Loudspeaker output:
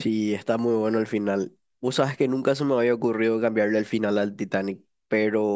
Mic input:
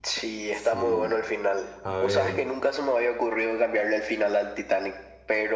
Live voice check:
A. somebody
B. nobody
A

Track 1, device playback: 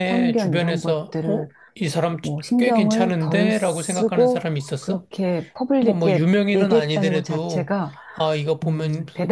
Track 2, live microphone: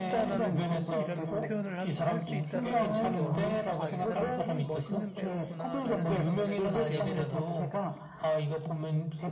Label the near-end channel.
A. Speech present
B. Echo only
A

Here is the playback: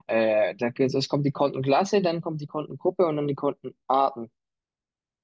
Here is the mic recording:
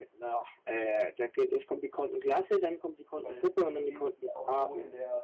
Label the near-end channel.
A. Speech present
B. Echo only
A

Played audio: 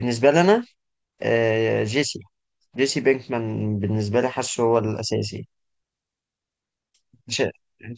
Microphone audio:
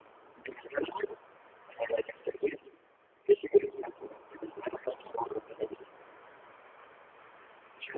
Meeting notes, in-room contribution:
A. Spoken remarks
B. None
B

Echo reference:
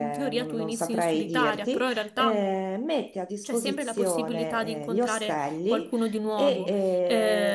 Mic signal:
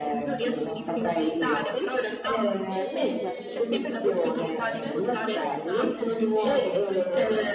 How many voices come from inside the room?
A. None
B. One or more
B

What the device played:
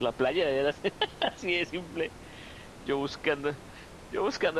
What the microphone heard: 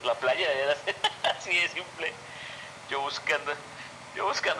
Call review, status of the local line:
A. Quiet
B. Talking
A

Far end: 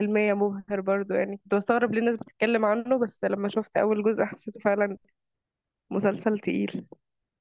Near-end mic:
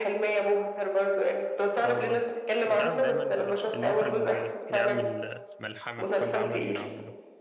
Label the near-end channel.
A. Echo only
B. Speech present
B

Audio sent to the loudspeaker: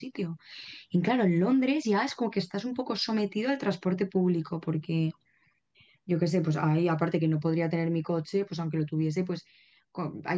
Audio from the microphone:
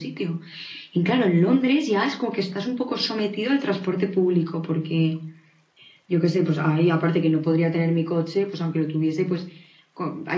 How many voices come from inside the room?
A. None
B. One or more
A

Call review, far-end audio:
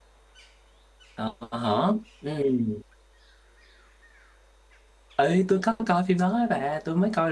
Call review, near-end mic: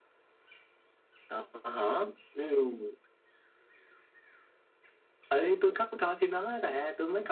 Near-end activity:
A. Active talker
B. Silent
B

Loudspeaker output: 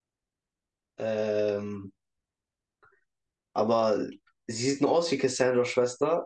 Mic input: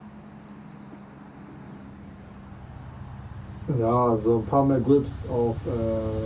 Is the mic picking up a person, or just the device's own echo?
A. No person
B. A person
B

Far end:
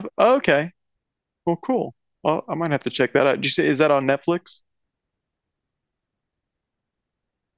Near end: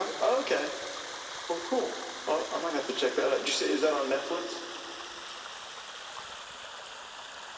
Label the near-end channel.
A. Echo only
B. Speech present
A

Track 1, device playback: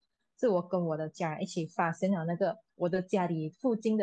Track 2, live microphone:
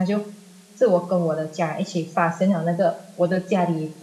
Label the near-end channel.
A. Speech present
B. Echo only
B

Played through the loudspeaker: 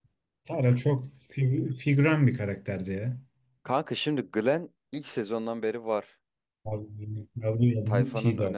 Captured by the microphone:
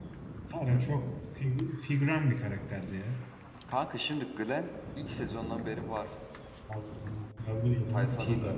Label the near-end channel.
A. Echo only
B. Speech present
A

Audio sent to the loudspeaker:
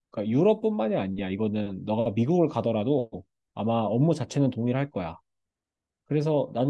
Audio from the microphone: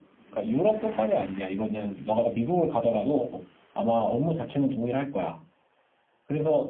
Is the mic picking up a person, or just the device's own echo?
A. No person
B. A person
A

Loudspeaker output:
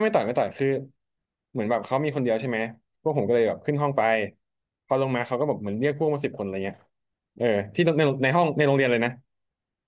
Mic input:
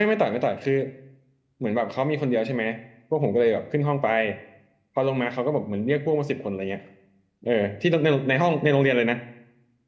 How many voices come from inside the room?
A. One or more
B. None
B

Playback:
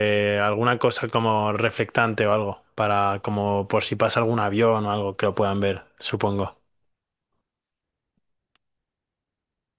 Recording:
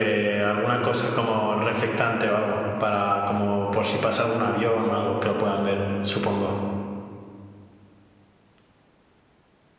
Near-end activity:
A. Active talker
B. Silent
B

